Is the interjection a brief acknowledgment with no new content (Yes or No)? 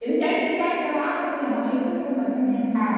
No